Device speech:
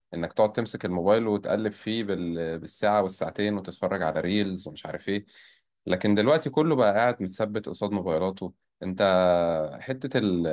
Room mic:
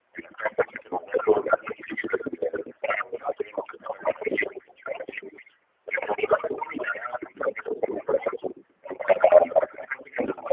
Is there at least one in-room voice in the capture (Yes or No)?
No